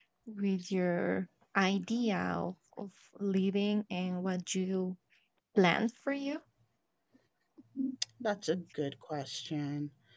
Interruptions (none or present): none